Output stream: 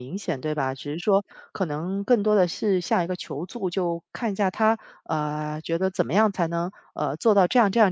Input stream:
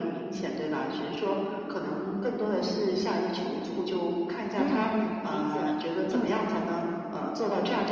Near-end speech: present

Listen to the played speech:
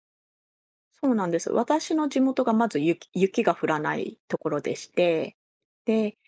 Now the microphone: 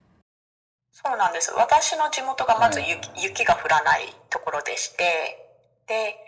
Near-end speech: present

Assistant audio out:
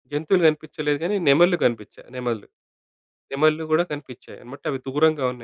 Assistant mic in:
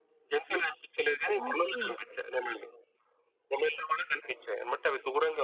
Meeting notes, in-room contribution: present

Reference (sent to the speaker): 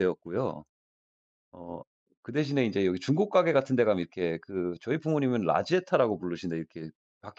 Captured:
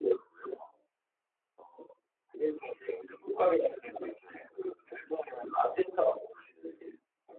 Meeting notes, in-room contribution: none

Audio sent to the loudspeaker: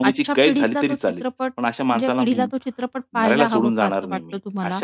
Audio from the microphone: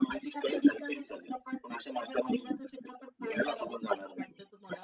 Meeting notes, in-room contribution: none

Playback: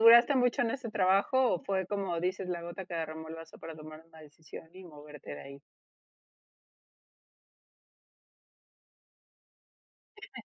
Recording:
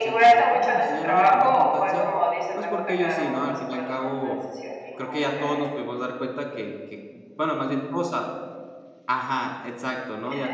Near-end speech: present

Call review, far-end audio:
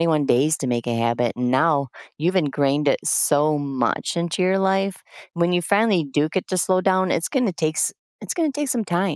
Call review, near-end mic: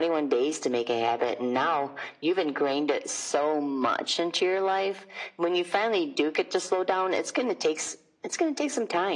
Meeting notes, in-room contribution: none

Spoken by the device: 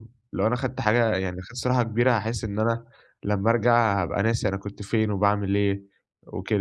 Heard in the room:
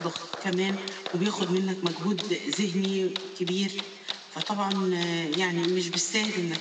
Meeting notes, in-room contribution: present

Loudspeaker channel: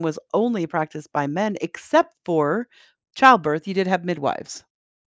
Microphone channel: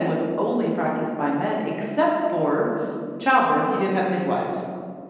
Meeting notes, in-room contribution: none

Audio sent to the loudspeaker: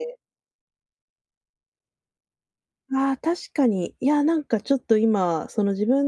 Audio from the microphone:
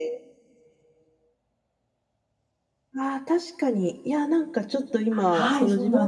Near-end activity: present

